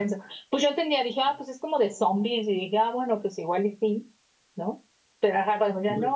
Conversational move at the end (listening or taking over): listening